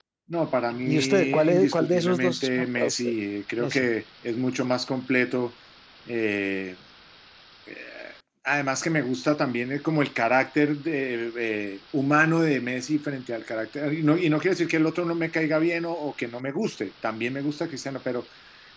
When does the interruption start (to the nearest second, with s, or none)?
1 s